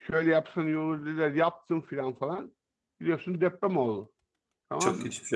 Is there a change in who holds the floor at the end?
Yes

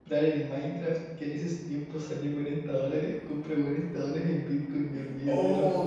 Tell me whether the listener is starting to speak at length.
Yes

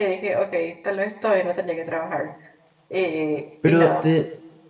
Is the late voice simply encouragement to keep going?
No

